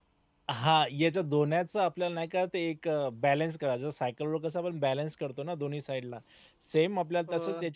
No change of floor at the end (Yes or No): Yes